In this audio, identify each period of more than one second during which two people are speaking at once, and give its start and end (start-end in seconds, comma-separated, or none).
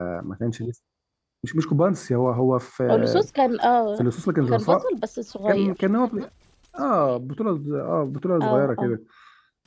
none